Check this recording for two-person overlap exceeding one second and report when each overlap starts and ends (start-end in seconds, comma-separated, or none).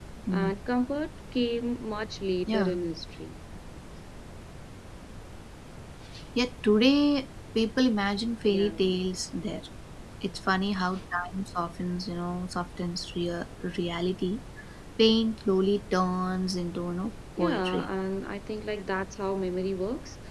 none